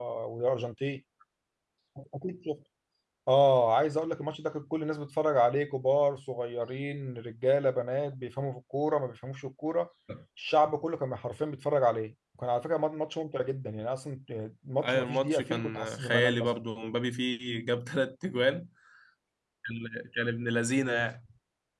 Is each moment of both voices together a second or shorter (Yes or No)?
No